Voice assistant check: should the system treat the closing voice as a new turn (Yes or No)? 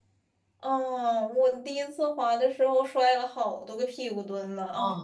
Yes